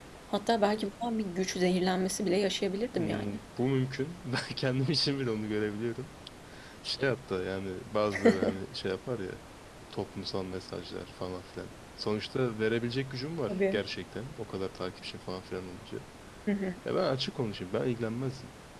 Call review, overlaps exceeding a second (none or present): none